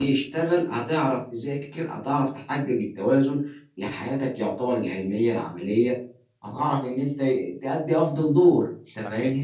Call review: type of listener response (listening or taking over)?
taking over